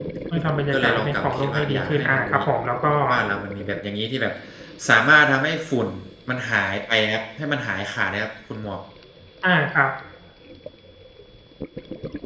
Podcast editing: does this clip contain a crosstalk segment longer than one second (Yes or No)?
Yes